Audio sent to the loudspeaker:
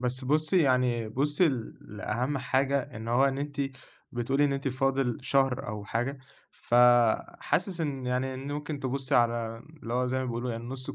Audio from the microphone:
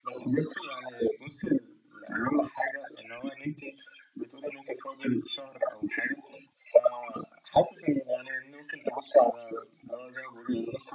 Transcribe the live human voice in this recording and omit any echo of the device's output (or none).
none